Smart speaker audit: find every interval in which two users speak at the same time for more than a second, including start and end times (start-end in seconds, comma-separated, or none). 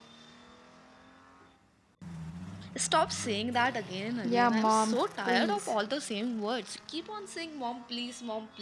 4.2-5.7